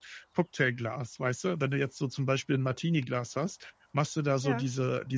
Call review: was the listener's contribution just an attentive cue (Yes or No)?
Yes